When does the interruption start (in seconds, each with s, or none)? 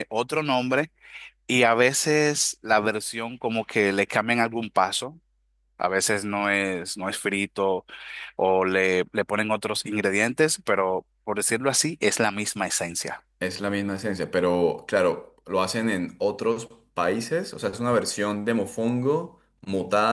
none